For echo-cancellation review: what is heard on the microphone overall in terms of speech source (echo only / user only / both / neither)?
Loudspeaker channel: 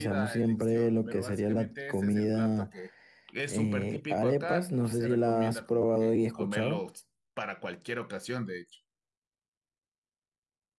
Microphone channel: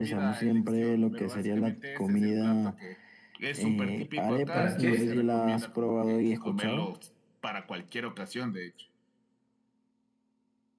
both